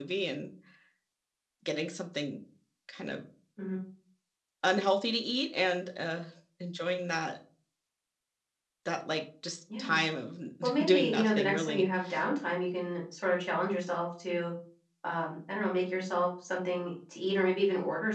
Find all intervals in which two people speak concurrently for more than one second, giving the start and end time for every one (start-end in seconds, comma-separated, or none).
10.6-11.9